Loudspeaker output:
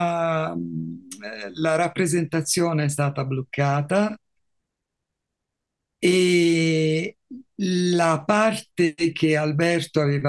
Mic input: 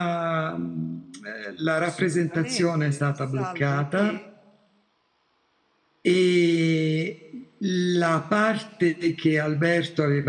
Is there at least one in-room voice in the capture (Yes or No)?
Yes